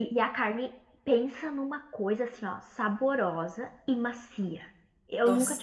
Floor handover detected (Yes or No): No